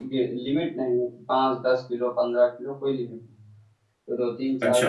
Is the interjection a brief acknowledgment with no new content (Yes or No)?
Yes